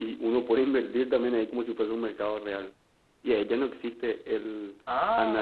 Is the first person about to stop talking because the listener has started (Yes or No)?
No